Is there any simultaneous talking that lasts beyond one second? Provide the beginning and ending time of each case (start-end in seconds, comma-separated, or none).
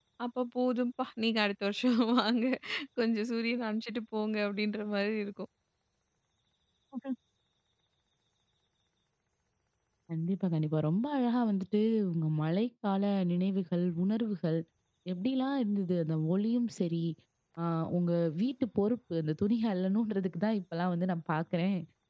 none